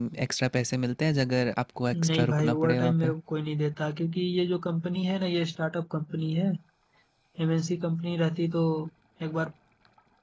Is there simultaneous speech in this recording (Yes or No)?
Yes